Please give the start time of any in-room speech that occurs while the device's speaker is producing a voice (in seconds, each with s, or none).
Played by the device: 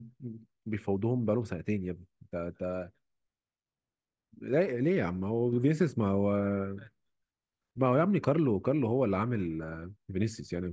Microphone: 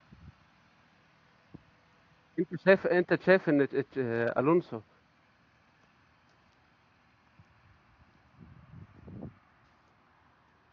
2.4 s